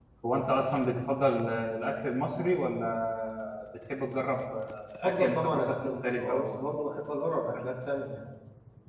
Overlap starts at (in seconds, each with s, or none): 5.0 s